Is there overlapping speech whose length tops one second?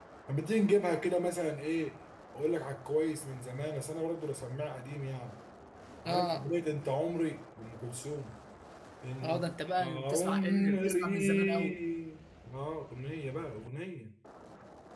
Yes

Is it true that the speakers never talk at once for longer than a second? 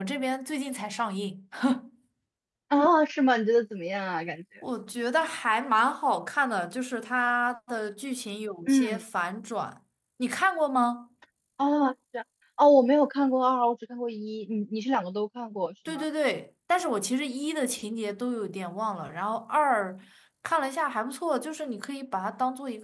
Yes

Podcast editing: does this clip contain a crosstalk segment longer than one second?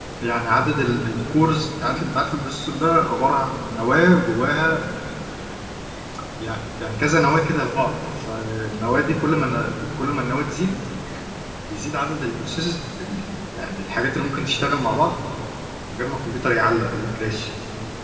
No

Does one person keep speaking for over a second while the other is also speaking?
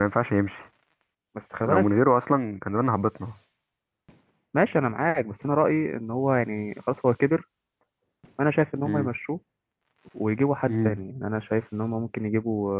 No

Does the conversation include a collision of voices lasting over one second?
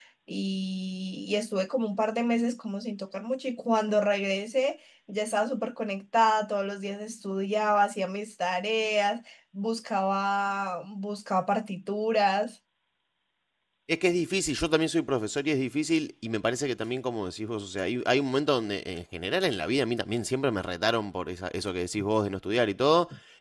No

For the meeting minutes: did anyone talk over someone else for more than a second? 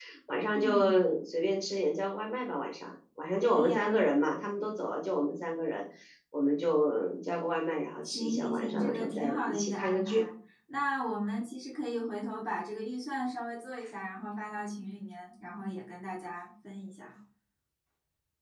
Yes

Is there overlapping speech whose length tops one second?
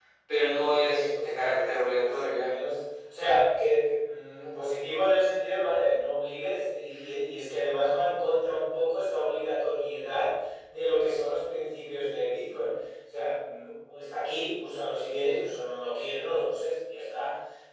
Yes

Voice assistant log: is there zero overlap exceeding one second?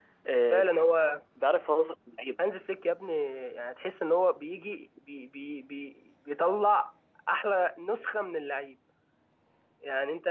Yes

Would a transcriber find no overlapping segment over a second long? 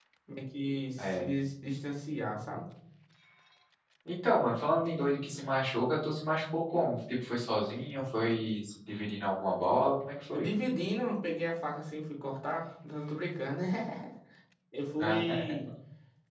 Yes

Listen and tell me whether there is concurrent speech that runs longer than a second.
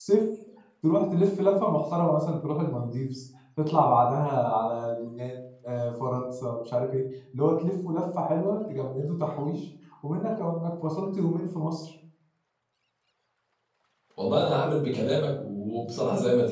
No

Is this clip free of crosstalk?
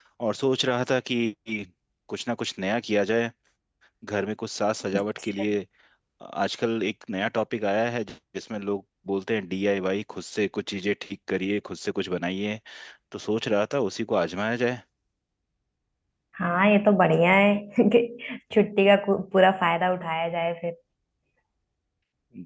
Yes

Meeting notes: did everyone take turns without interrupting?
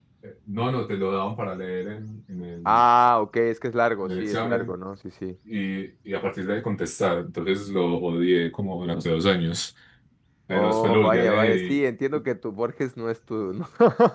No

